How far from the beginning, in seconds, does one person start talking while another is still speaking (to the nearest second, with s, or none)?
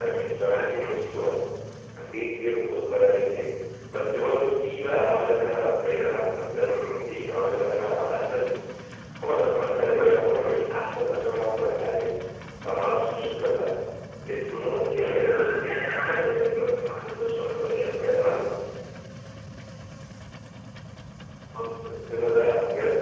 15 s